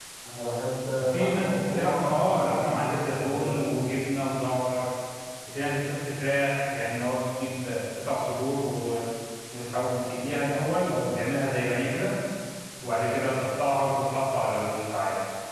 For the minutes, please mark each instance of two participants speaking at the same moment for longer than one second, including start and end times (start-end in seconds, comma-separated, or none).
1.0-3.7